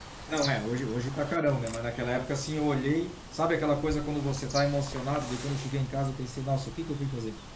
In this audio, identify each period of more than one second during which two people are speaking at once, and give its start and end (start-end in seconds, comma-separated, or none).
none